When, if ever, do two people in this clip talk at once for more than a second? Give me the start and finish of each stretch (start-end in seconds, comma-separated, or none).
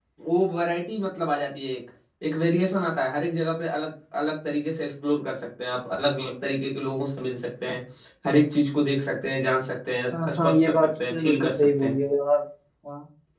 10.2-12.0